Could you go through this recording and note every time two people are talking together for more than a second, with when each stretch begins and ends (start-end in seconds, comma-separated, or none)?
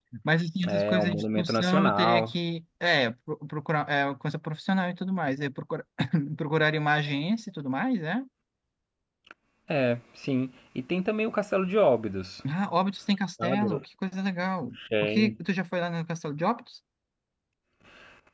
0.7-2.3